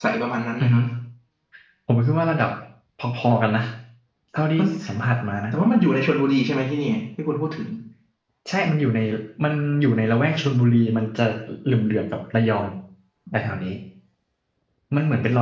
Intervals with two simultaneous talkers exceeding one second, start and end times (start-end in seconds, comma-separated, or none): none